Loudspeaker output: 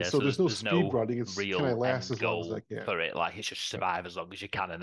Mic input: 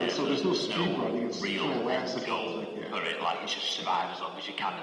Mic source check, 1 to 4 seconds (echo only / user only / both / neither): echo only